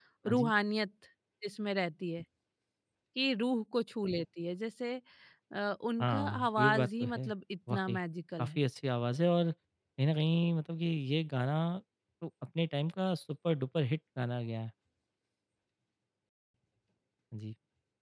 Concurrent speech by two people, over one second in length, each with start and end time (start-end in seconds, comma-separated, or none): 6.0-7.3